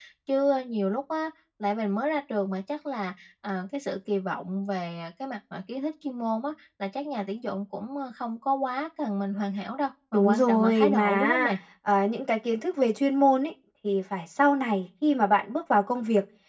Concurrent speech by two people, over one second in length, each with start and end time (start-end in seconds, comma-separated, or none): 10.1-11.5